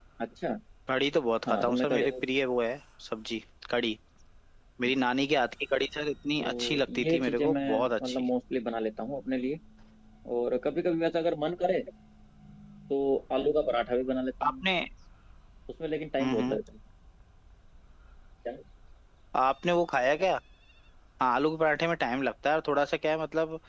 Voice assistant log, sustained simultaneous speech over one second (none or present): present